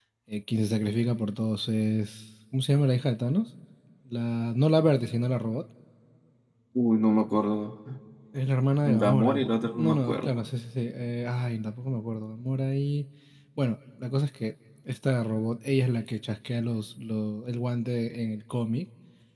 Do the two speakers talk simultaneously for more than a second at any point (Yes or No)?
Yes